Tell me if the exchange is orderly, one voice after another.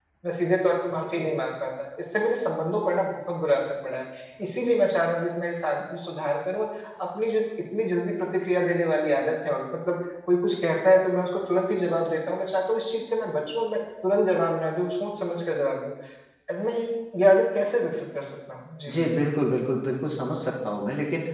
Yes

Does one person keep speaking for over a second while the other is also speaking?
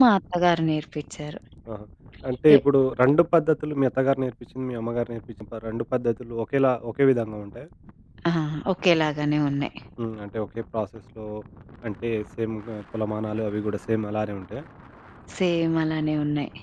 No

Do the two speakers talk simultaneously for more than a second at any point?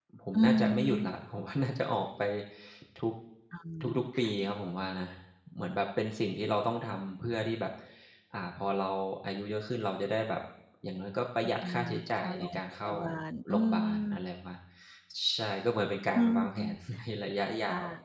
Yes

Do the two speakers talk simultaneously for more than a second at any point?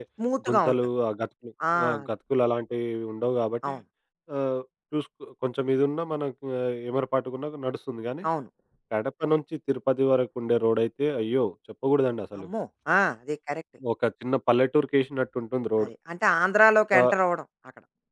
No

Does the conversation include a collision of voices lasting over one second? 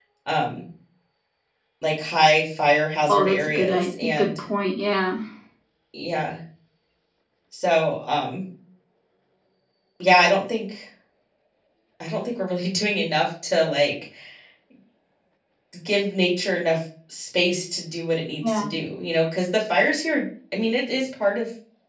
Yes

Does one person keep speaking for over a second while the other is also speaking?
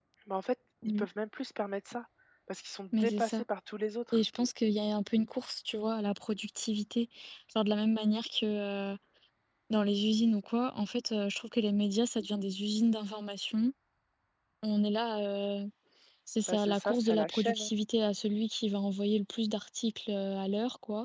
Yes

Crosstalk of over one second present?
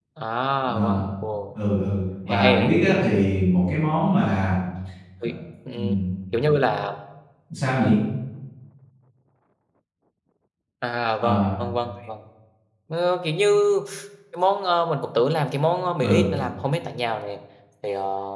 No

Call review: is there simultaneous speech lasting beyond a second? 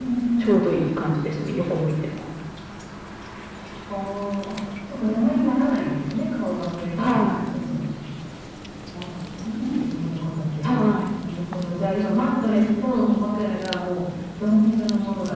No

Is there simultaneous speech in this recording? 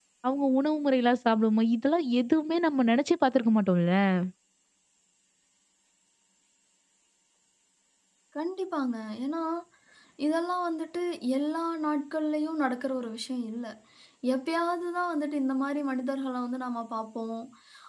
No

